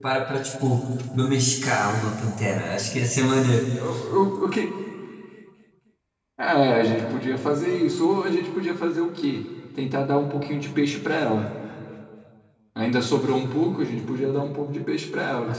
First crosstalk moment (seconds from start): none

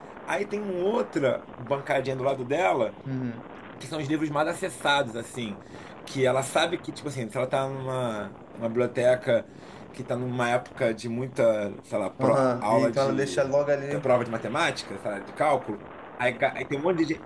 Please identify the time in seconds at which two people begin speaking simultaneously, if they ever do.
12.2 s

